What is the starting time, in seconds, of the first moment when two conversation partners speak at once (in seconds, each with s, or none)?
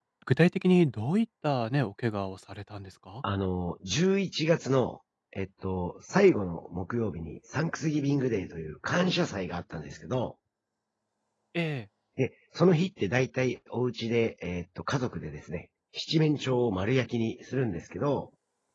none